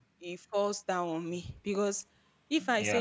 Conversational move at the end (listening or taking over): listening